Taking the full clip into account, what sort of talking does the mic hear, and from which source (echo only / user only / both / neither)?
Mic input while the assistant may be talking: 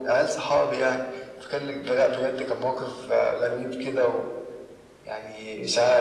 echo only